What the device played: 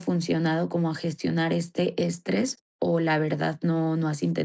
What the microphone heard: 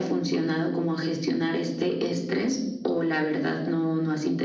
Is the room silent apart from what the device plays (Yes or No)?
Yes